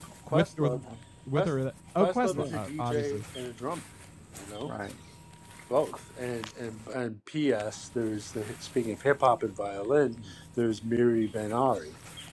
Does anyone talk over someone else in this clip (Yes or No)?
Yes